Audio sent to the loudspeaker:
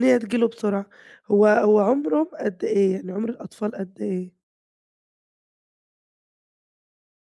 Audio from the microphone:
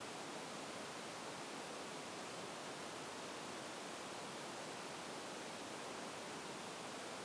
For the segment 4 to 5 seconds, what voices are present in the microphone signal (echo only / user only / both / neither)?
neither